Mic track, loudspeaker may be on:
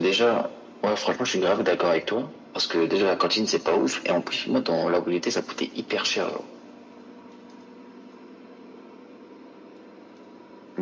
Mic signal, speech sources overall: echo only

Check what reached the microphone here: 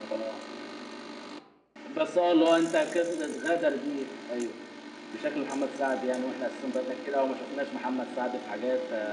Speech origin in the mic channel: echo only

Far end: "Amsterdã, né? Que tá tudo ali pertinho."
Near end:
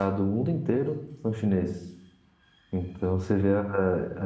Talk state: user only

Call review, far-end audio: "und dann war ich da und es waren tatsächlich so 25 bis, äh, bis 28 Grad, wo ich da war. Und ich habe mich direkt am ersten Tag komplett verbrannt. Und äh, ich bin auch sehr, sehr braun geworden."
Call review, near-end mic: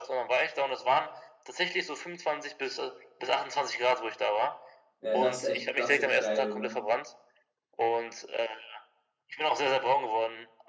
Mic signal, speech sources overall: both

